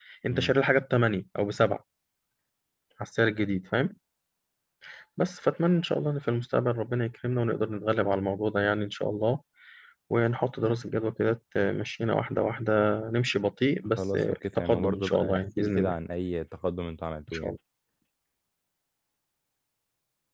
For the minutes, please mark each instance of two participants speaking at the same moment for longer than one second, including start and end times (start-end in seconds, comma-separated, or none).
14.0-15.9